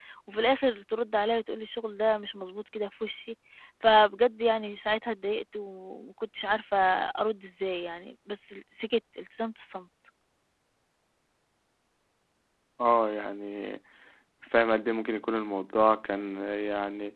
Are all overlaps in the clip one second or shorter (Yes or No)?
Yes